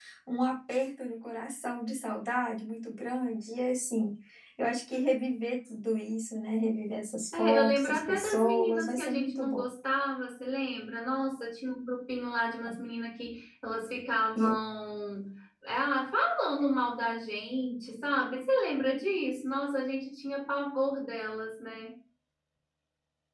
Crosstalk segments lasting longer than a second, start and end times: 7.3-9.6

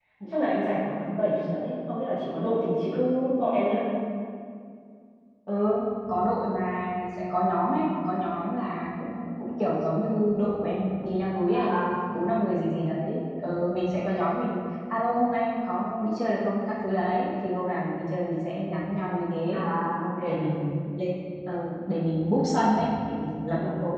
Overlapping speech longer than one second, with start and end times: none

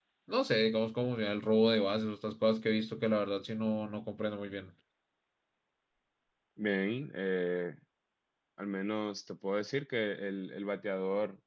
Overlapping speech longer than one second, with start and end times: none

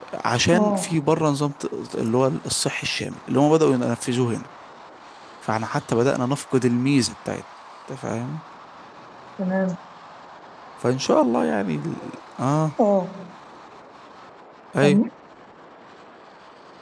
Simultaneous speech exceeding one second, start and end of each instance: none

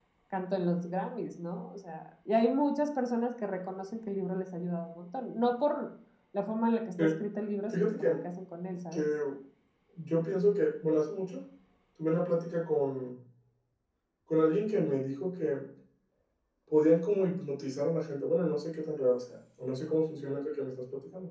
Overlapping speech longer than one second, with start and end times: none

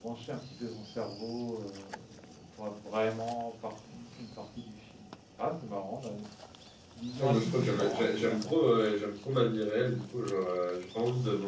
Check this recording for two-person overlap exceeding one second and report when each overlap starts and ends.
7.2-8.5

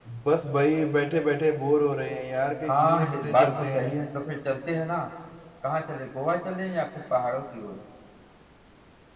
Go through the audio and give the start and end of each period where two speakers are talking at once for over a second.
2.7-3.9

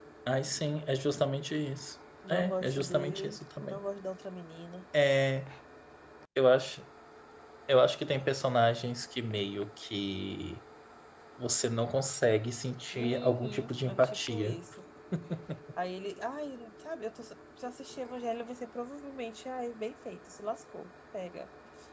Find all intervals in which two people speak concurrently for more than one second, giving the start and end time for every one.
2.3-3.8, 12.9-14.6

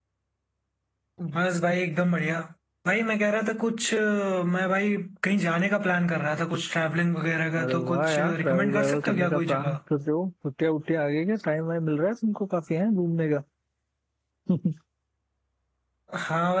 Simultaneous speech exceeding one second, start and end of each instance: 7.6-9.8

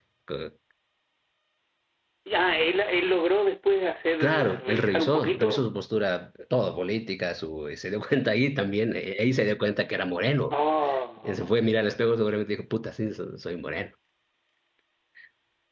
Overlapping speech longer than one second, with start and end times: 4.2-5.6

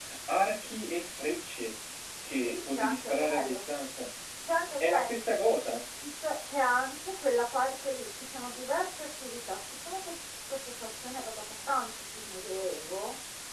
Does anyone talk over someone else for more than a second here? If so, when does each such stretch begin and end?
2.4-3.6

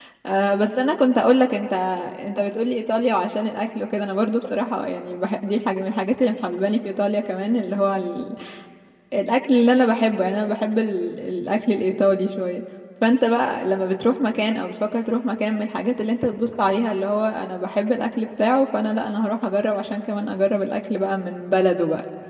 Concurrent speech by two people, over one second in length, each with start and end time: none

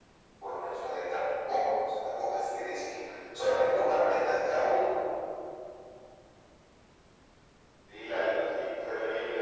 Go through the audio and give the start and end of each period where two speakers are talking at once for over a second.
none

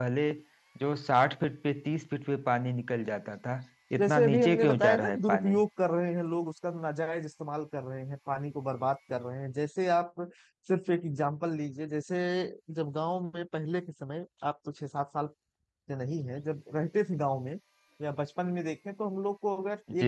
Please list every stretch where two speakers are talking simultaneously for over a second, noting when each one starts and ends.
4.0-5.6

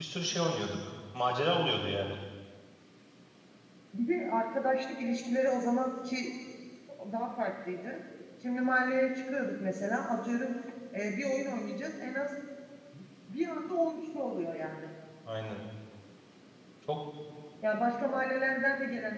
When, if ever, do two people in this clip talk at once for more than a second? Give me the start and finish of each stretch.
none

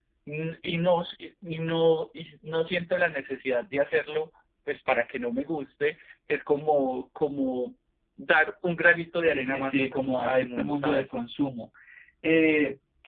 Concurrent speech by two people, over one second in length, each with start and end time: 9.3-11.0

